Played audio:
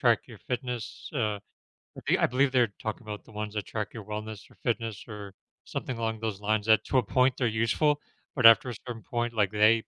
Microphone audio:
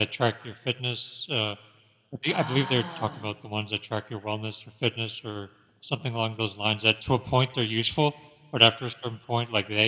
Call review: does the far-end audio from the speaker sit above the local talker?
Yes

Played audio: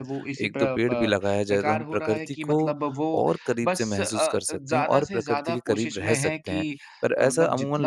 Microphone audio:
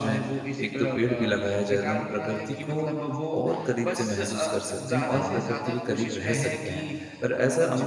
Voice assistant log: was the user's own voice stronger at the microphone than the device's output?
No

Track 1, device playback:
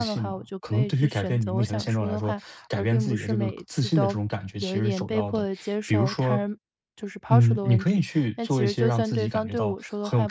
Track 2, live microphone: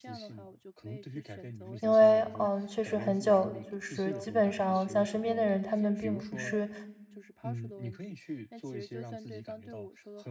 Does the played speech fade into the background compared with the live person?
Yes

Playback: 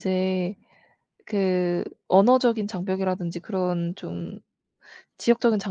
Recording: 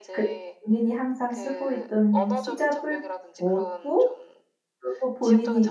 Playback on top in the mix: No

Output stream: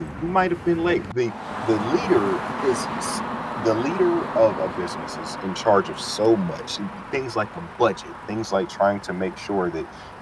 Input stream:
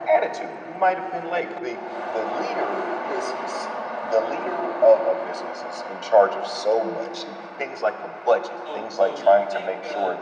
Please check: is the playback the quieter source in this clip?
No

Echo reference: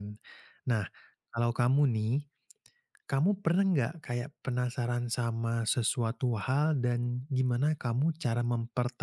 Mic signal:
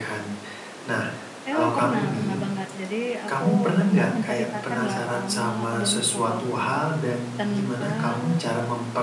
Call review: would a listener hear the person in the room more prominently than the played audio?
No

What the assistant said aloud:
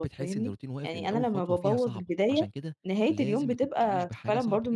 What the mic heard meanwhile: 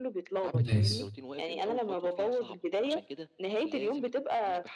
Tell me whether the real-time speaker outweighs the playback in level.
Yes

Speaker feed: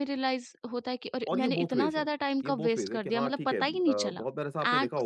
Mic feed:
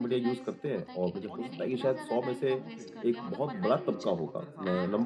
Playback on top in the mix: No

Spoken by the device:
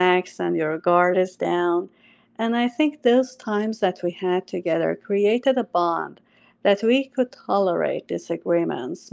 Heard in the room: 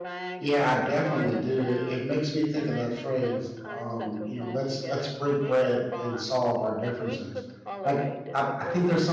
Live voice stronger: Yes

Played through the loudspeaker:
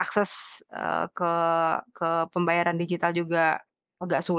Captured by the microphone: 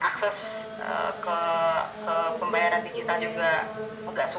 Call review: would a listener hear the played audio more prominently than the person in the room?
Yes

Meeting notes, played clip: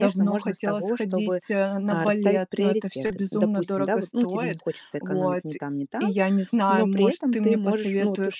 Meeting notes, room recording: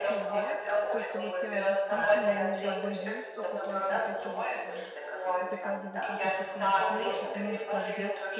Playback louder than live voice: Yes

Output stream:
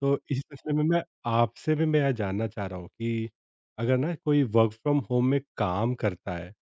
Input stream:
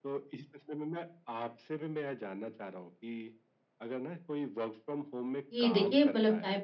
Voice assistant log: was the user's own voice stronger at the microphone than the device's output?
Yes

